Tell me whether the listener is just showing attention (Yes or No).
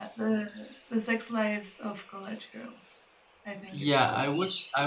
No